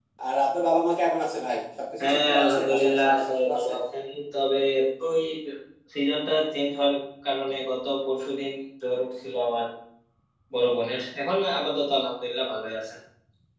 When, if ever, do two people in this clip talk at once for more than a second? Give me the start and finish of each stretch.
2.0-3.7

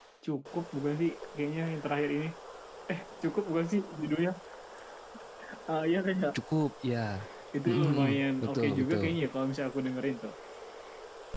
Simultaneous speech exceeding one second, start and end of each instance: 7.7-9.1

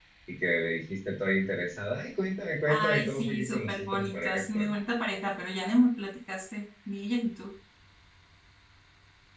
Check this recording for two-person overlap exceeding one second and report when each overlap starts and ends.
2.7-4.7

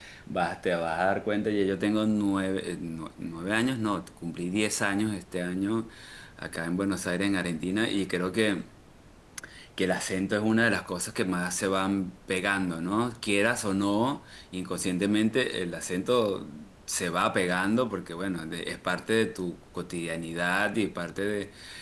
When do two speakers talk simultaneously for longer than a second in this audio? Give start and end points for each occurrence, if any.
none

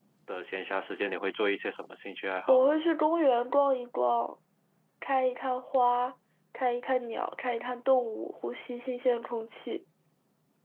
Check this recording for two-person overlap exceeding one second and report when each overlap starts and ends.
none

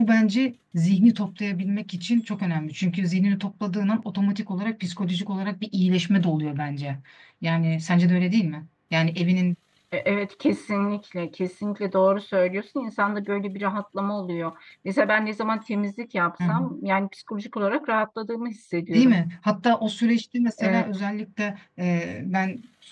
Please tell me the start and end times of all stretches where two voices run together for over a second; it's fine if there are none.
none

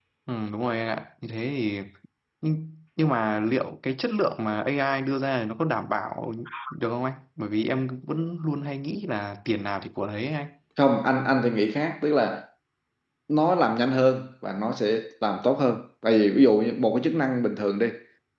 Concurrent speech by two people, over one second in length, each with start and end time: none

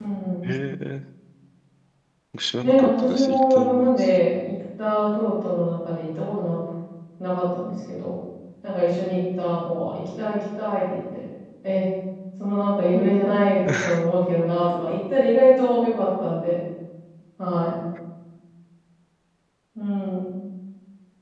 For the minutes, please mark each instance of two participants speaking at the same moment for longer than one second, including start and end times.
2.6-4.1

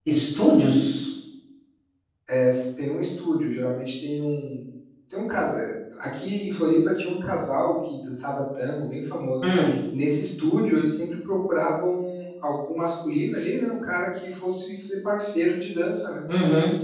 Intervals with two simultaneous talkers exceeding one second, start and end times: none

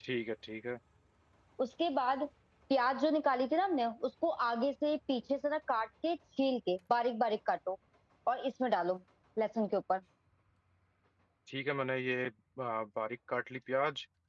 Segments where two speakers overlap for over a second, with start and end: none

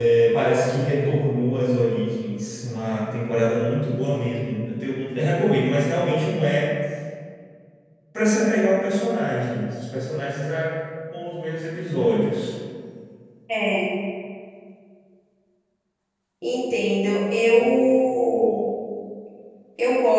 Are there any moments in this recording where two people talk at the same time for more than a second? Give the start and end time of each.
none

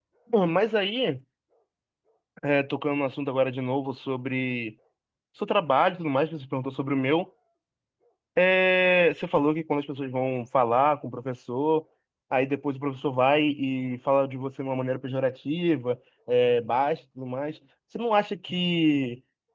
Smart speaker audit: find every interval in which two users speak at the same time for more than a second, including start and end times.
none

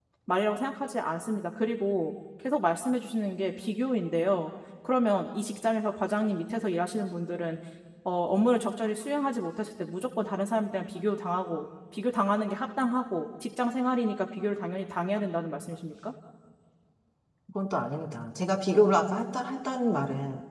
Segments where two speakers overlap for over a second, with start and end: none

